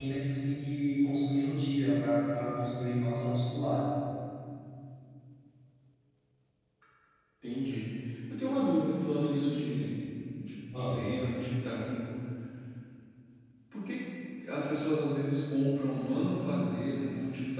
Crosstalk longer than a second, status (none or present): none